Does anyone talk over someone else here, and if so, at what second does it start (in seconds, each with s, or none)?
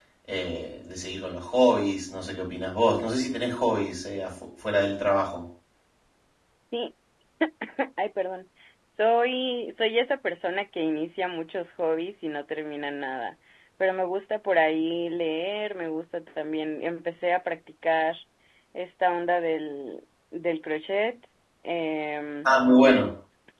none